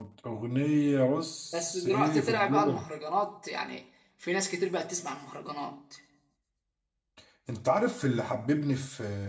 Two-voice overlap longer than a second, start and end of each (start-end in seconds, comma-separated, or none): 1.5-2.8